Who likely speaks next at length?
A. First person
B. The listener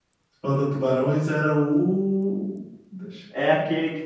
B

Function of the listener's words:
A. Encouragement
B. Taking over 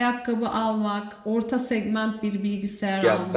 B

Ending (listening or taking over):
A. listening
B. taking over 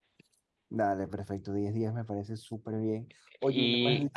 A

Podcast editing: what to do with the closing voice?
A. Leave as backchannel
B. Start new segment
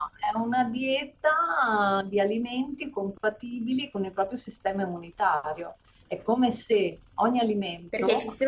B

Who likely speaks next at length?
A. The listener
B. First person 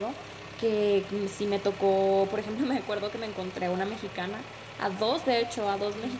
B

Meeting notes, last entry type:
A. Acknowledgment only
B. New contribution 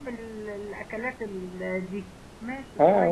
B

